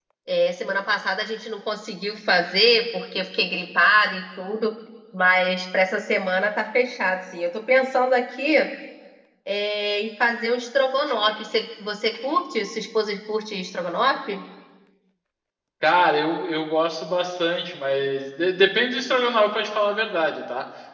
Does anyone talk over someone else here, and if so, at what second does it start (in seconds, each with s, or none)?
none